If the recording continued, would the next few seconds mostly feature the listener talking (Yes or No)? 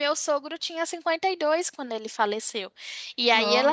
No